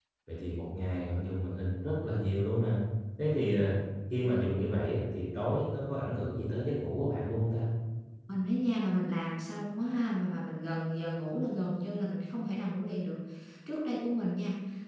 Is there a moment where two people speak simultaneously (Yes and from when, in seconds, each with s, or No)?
No